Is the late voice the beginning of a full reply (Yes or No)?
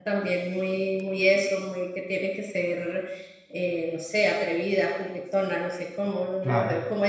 No